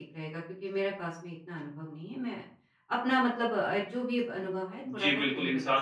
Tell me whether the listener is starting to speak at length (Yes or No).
Yes